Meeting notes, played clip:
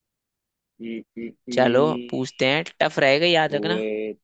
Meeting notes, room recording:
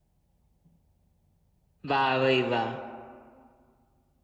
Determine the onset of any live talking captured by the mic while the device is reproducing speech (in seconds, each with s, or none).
1.9 s